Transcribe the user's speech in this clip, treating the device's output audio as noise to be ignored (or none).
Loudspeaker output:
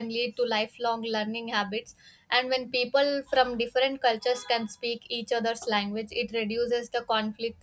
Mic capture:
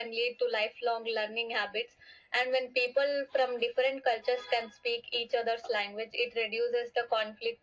none